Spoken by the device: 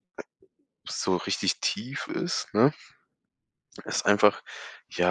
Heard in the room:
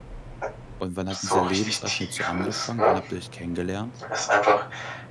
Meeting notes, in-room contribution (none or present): present